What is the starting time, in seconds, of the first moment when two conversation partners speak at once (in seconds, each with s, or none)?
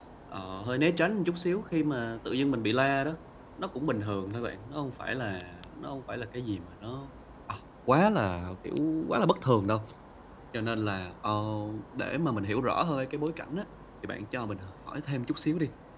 none